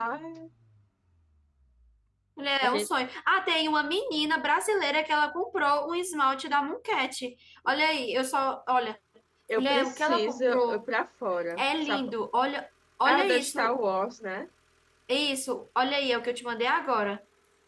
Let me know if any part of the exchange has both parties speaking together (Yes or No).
Yes